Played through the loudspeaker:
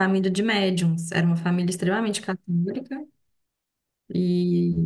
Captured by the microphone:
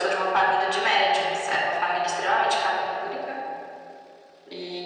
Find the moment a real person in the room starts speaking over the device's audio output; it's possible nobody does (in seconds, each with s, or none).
none